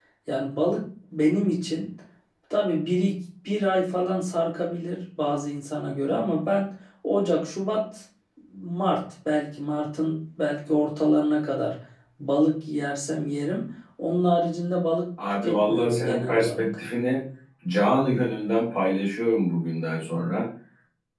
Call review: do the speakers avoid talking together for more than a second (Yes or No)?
No